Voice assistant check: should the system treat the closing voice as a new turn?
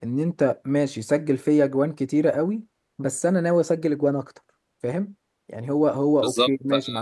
No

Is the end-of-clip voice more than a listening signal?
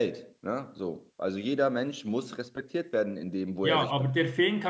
Yes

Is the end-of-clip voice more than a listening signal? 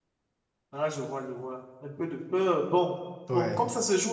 No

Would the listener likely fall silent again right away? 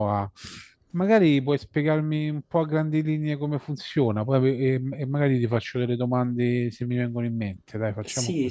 No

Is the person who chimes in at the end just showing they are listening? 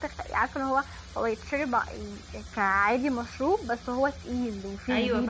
No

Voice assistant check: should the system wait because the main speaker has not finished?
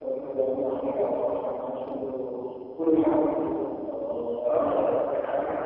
No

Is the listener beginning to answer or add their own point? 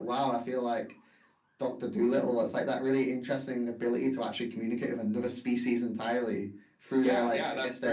Yes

